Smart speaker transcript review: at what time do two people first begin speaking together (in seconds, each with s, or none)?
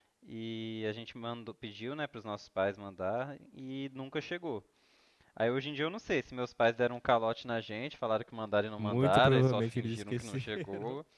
8.8 s